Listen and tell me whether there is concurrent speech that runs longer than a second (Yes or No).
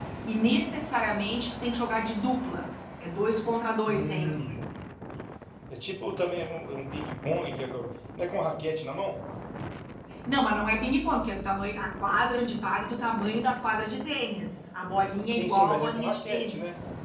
Yes